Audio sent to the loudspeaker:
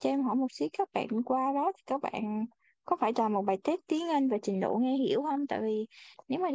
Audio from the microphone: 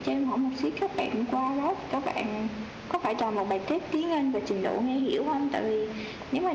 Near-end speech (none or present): none